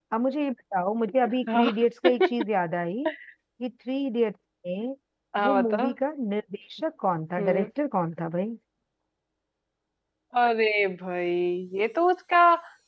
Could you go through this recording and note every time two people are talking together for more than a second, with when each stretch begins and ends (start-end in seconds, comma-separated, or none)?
none